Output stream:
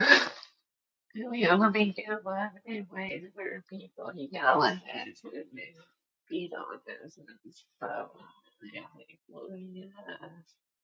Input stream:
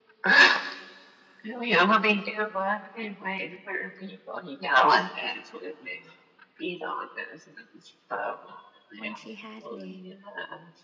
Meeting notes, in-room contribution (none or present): present